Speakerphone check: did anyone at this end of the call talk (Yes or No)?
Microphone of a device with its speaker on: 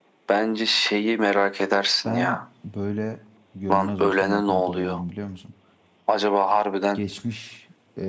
Yes